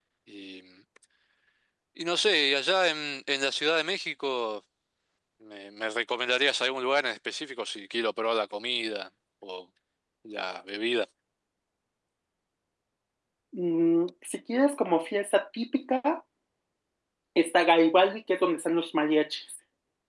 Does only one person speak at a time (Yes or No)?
Yes